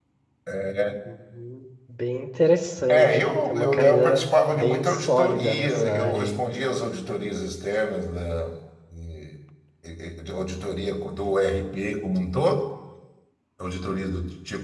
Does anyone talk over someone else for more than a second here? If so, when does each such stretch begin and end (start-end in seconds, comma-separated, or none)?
2.9-6.4